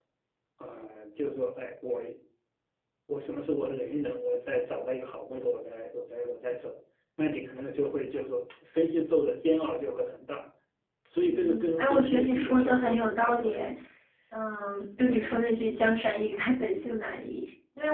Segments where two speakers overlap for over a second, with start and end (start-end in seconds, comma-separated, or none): 11.2-13.7